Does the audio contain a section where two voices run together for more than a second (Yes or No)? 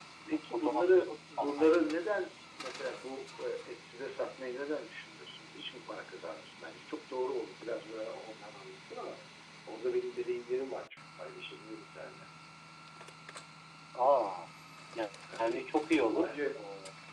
Yes